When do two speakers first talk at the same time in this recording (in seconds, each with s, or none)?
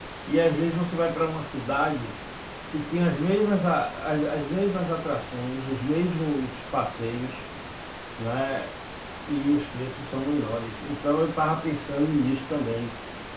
none